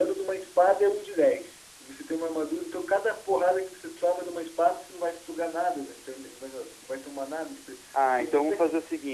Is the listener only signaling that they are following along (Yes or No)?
No